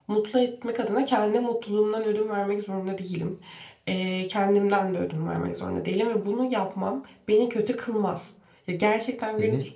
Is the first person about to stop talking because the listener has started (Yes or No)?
No